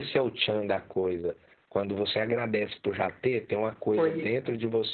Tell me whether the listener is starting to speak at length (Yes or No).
No